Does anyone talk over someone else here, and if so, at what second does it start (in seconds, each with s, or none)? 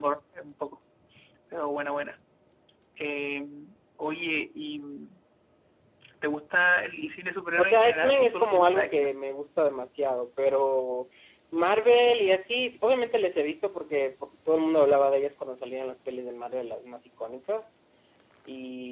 7.6 s